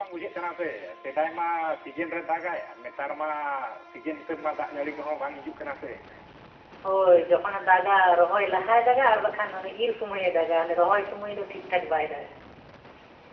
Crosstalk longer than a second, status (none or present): none